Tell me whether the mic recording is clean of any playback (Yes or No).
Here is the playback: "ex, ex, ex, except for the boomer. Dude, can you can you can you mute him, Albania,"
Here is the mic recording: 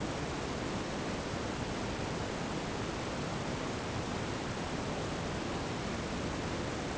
Yes